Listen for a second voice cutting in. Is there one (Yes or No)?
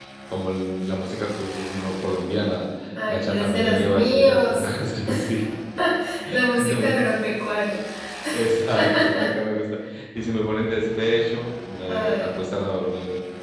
Yes